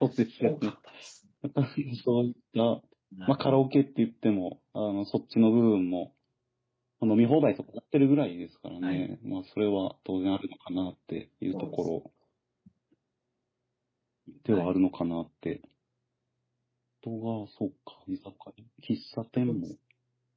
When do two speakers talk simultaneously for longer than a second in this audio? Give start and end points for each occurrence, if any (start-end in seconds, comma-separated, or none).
none